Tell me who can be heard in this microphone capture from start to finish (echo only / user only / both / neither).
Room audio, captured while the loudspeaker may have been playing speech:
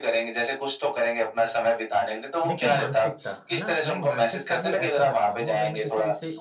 both